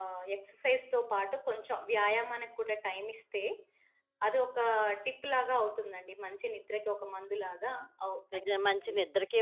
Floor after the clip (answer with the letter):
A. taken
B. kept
A